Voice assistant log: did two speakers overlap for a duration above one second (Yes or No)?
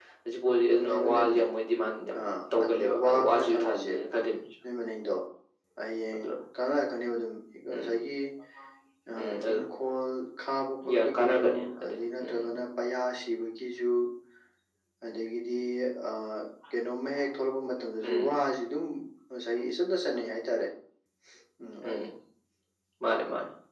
Yes